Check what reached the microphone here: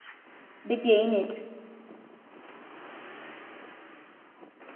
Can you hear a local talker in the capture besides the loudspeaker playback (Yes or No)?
Yes